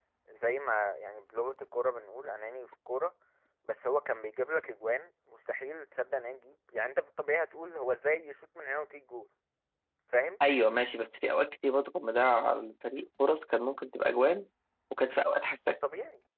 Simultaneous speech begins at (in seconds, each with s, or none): none